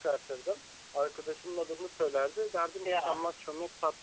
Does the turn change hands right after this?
No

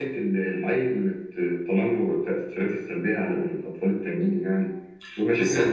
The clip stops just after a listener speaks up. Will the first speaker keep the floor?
No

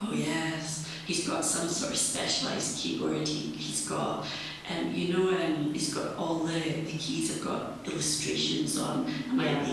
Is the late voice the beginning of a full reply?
No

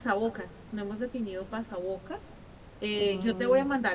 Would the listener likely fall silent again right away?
Yes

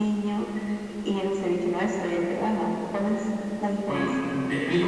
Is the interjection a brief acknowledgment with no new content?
No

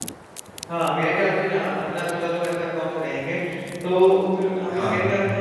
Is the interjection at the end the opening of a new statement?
No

